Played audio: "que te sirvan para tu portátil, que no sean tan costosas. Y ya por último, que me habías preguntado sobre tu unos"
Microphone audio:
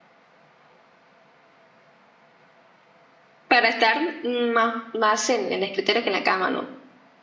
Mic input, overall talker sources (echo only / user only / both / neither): user only